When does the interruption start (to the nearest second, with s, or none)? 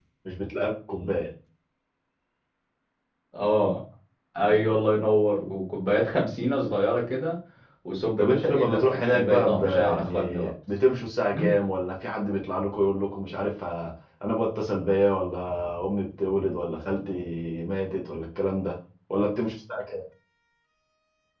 8 s